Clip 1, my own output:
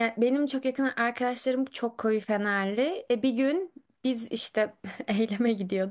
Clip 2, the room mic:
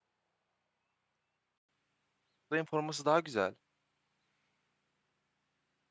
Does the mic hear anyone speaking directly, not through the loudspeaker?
Yes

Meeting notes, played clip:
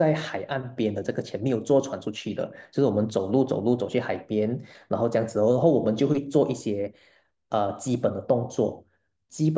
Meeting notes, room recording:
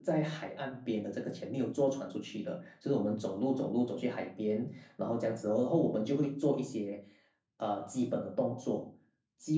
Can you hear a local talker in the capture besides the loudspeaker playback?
No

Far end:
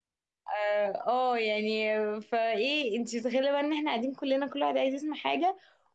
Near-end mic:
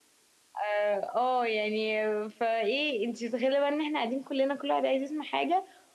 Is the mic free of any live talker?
Yes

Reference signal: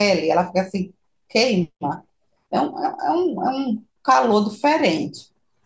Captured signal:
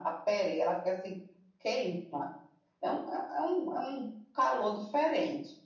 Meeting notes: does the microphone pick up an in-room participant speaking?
No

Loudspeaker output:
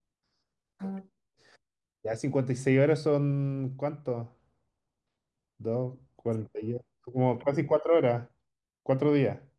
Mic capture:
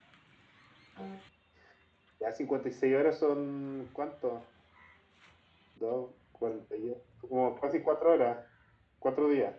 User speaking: No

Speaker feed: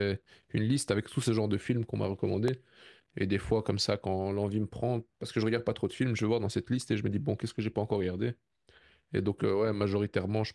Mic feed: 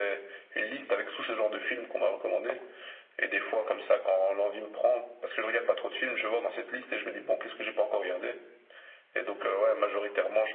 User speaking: No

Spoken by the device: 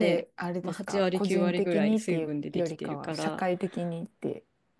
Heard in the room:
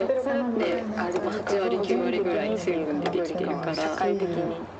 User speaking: Yes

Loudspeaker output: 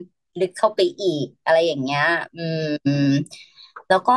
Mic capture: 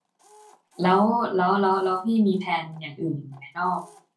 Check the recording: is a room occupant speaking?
Yes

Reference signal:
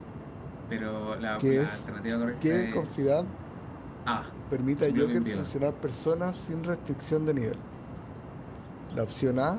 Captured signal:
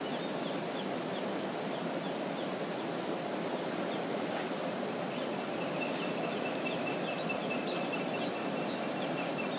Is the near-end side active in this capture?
No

